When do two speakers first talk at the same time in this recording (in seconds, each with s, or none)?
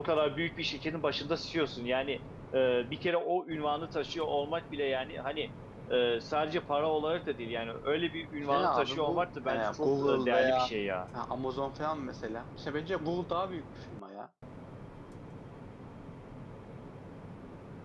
8.5 s